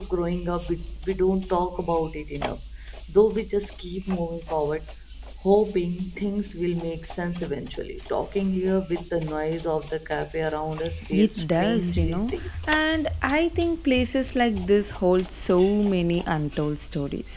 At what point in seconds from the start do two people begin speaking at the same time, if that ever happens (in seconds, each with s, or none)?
11.1 s